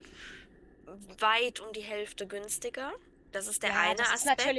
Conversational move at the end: taking over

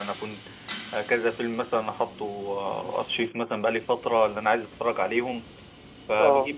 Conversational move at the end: listening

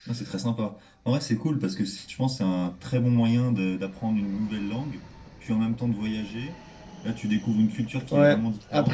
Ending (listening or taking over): taking over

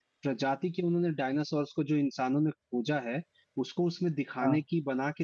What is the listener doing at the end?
listening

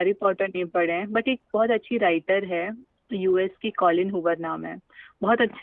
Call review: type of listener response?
listening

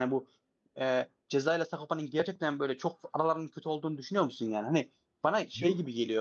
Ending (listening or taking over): listening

